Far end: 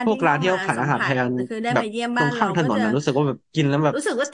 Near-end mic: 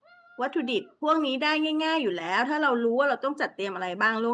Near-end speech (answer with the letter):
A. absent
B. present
B